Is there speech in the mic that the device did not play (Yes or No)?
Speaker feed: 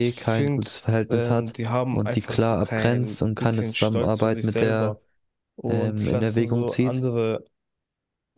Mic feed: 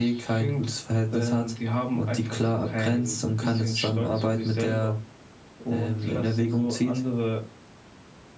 No